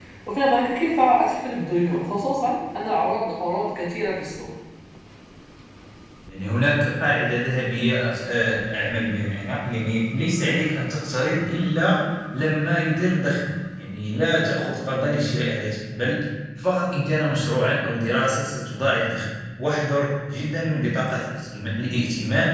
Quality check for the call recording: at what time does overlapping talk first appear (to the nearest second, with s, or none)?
none